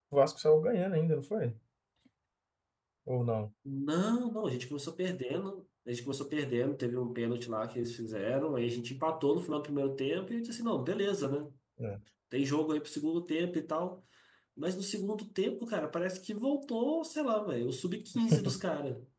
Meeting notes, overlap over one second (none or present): none